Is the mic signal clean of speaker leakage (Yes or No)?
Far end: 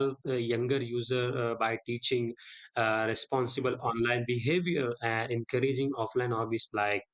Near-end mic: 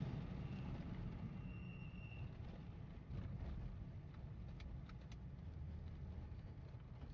Yes